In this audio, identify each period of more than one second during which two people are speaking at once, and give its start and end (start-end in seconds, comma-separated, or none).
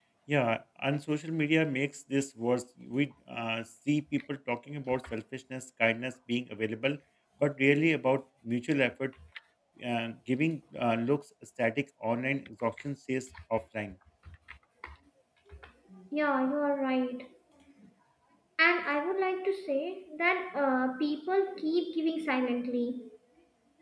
none